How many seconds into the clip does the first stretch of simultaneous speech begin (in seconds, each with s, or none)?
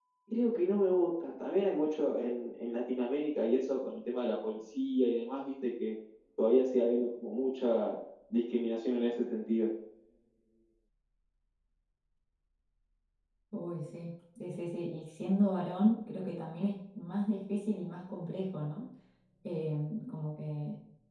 none